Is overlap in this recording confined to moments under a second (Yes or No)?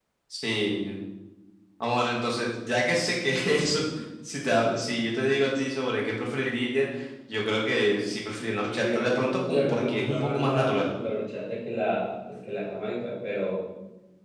No